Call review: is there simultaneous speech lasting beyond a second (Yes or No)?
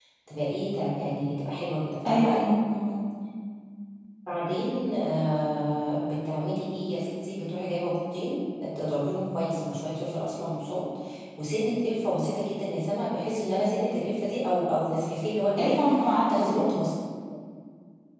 No